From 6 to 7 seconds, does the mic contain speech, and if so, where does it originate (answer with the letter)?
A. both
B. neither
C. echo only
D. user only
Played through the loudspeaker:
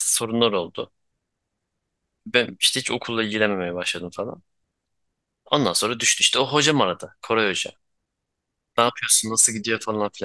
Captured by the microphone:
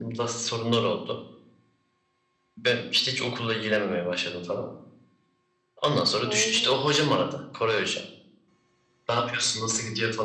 A